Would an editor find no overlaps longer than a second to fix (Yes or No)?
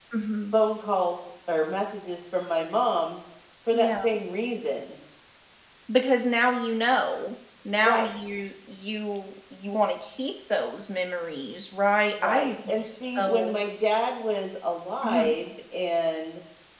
No